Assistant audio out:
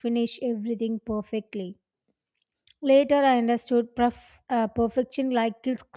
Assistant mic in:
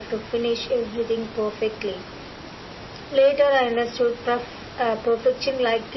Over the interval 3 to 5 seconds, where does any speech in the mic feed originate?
echo only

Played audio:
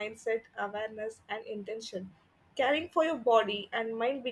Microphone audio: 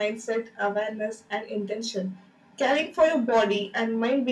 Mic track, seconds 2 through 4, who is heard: echo only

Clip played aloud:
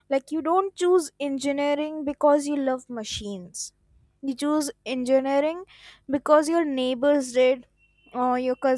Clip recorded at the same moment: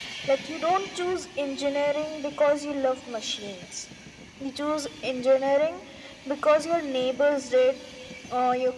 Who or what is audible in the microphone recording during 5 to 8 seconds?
echo only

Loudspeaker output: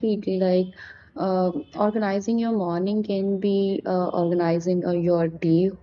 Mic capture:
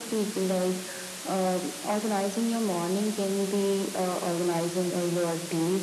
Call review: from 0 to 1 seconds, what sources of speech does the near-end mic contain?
echo only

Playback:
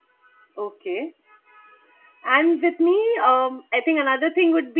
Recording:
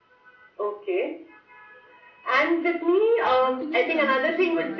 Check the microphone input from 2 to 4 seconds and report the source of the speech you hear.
both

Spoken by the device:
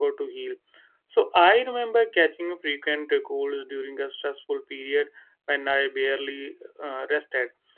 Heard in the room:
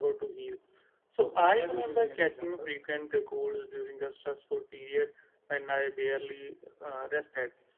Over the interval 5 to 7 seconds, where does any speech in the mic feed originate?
echo only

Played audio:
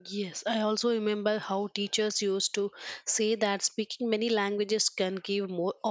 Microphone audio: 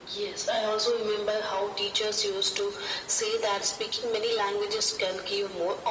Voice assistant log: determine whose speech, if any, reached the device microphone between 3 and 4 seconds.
echo only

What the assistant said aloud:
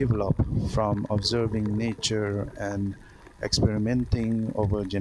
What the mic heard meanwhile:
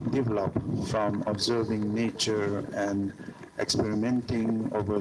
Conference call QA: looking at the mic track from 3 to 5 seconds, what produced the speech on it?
echo only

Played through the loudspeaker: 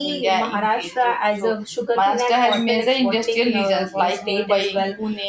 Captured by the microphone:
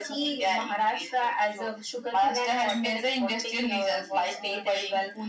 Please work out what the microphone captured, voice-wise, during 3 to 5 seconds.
echo only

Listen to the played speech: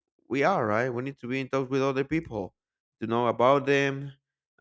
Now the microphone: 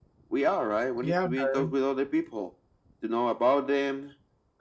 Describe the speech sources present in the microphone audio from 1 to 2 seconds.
both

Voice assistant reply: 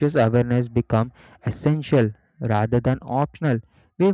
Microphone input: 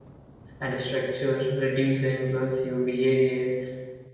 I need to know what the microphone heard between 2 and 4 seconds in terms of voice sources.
user only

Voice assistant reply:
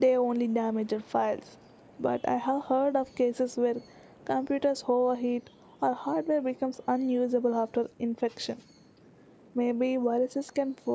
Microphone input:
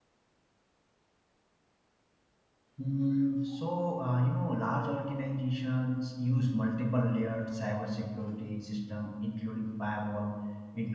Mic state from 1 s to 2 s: neither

